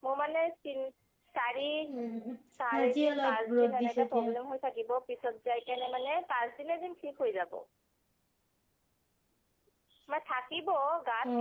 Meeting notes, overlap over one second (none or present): present